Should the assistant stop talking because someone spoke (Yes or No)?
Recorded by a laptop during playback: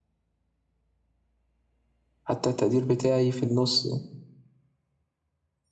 Yes